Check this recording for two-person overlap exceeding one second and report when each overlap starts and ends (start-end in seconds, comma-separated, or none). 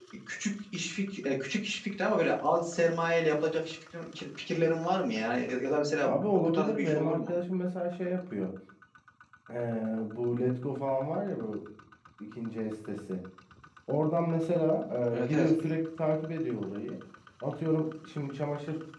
6.0-7.3